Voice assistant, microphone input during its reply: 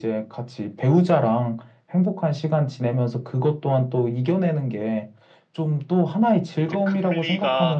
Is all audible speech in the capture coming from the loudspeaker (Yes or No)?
No